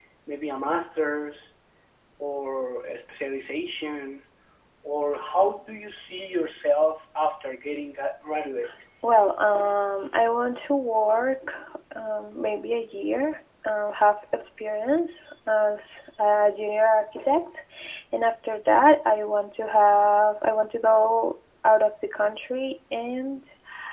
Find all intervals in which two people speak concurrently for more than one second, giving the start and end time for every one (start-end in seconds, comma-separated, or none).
none